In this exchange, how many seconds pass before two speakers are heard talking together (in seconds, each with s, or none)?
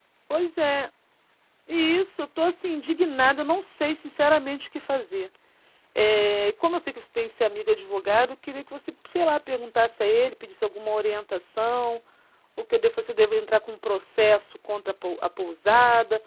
none